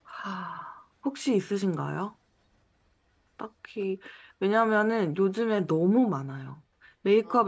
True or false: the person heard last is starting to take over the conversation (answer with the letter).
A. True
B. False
B